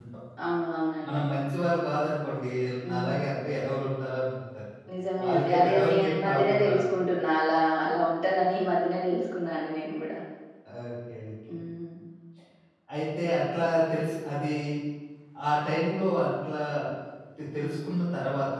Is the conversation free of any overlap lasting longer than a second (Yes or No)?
No